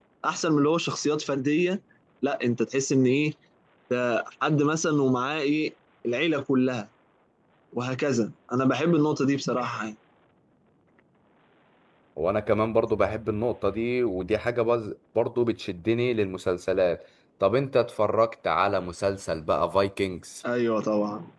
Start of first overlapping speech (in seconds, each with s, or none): none